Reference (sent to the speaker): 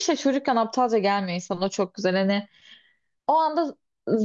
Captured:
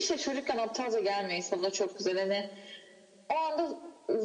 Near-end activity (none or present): none